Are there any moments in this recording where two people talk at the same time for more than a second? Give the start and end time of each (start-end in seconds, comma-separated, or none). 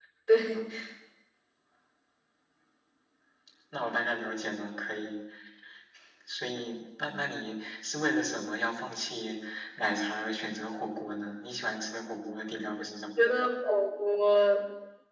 none